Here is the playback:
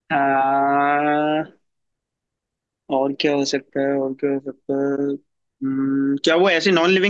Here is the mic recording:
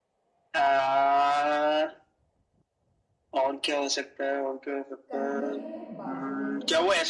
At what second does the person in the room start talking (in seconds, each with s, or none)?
5.1 s